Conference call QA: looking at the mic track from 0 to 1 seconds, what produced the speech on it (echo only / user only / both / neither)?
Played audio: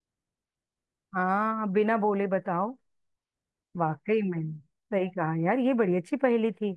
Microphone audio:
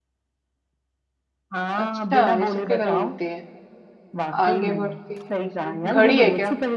neither